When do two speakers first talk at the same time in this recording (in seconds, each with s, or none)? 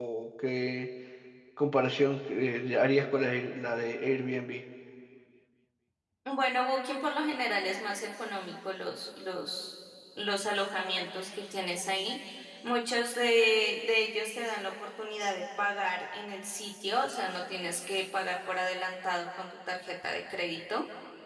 none